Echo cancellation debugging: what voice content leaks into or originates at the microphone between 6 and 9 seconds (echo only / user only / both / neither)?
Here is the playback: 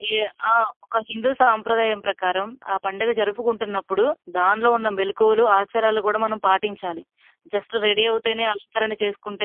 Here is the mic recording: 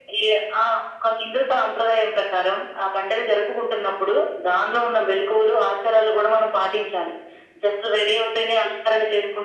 echo only